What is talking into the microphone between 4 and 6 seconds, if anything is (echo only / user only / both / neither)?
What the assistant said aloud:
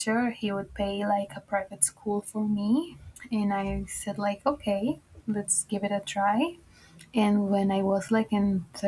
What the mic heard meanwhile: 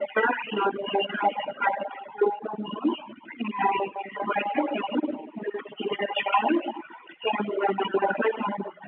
echo only